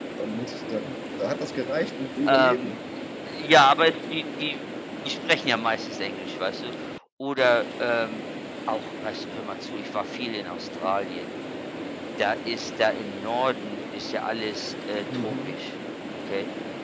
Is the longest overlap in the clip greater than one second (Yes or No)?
No